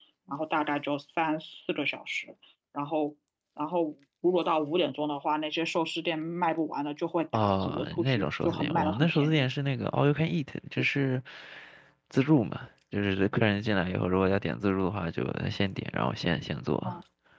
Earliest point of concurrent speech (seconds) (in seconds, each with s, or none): 7.3 s